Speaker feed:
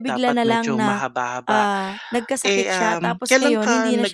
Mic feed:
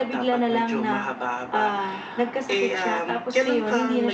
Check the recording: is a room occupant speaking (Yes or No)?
No